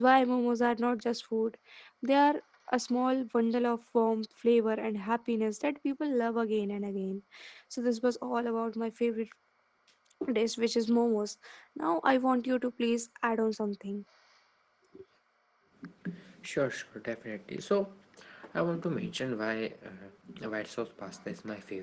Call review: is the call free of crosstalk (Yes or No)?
Yes